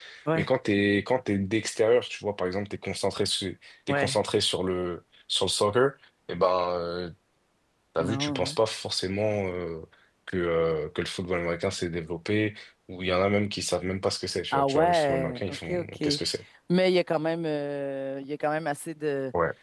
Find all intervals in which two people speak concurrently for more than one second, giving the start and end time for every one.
14.5-16.0

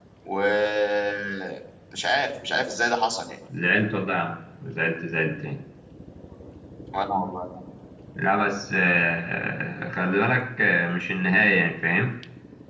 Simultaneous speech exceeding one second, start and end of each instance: none

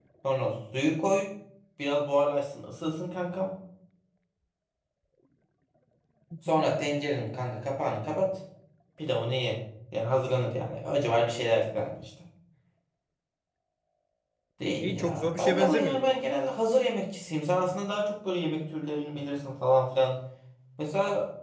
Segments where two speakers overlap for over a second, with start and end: 14.8-16.2

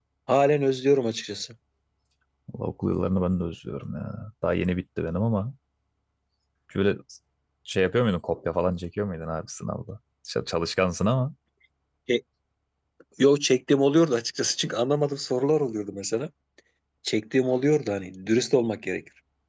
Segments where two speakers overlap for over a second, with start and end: none

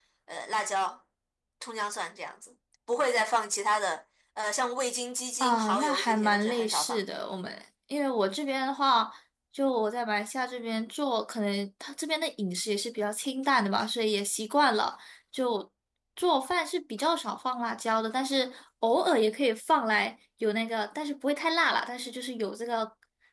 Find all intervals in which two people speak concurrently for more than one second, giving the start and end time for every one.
5.4-7.0

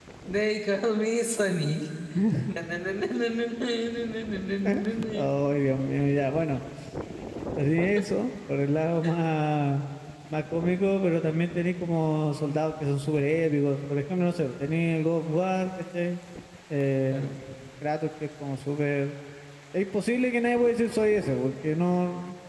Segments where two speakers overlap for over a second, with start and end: none

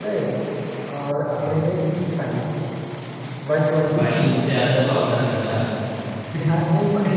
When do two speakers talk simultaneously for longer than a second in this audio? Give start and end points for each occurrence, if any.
none

